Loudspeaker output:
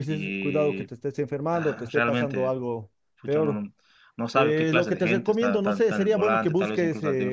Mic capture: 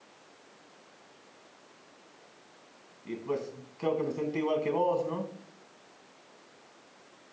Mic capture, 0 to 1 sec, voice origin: neither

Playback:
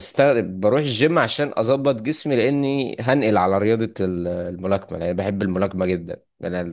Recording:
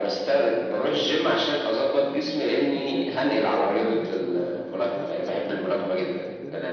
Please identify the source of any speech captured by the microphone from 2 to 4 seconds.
both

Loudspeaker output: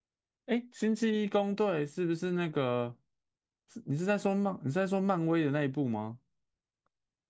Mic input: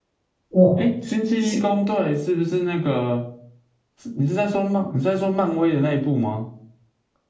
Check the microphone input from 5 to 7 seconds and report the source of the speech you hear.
echo only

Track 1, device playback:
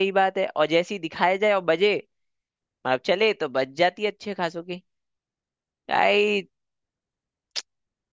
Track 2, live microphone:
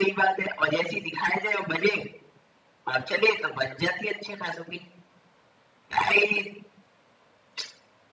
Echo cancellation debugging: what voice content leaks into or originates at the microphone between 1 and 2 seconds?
echo only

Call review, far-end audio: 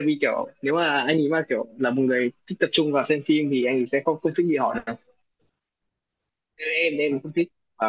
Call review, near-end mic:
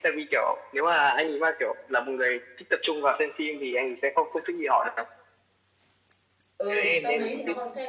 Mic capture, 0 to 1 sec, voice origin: echo only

